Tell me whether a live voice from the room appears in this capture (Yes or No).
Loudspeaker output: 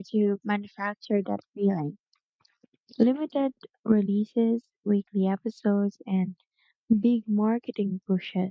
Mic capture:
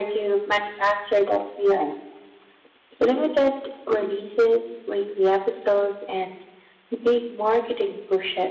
No